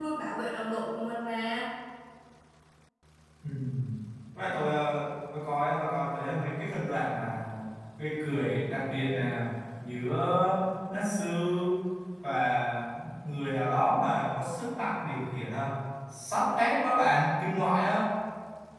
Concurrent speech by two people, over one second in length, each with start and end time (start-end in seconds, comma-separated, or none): none